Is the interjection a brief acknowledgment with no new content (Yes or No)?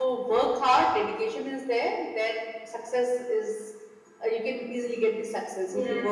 No